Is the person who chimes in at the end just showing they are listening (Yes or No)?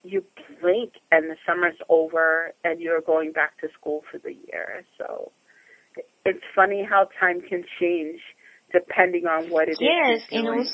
No